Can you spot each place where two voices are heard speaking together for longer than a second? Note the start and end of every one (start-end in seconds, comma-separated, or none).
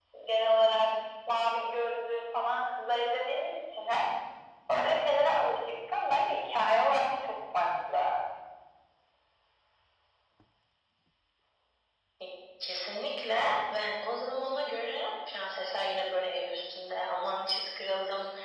none